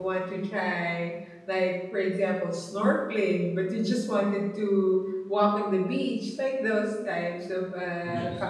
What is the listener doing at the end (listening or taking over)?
listening